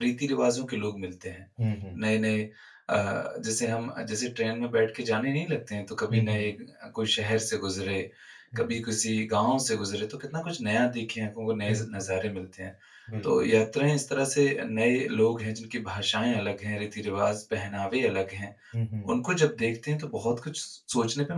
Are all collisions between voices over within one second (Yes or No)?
Yes